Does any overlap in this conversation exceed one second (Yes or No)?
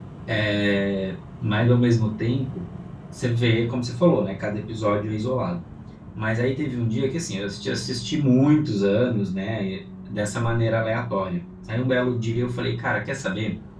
No